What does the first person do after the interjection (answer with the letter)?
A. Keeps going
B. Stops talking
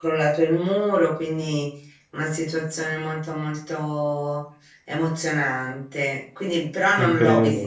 A